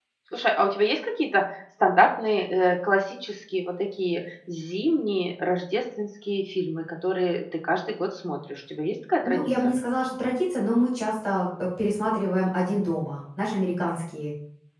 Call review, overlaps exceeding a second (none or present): none